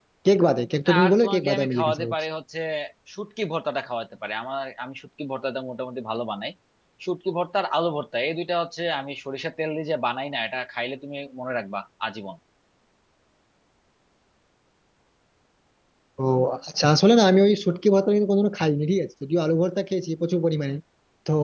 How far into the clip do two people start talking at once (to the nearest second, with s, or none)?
1 s